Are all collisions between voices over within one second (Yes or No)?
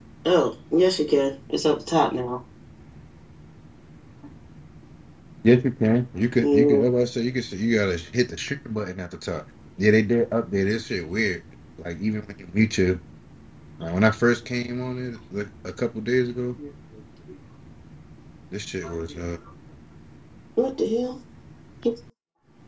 Yes